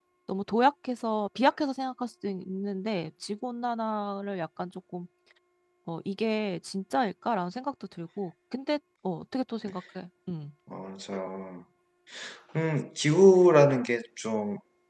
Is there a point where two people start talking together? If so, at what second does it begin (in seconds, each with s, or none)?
none